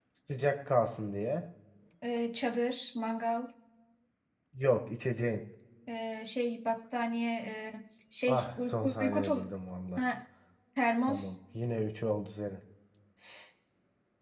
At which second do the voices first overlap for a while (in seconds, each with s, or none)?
8.3 s